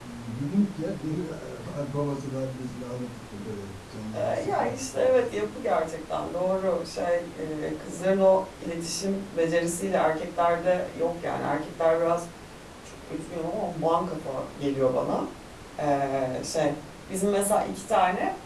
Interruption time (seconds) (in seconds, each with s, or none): 4.1 s